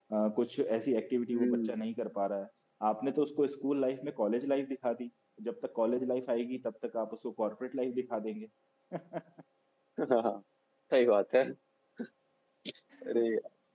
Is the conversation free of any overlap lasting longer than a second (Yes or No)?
Yes